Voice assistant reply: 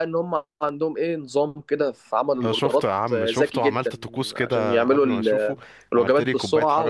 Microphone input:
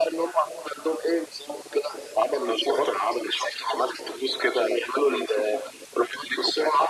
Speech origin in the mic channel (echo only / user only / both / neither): echo only